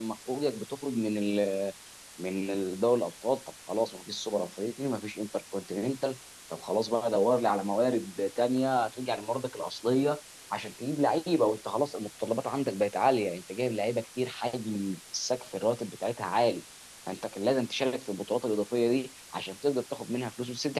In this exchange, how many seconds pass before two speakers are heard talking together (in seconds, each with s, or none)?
none